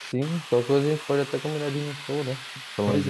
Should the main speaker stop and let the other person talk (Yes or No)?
Yes